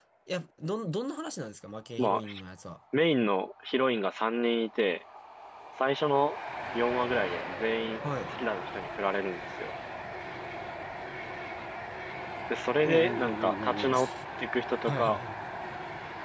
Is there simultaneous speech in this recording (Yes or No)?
Yes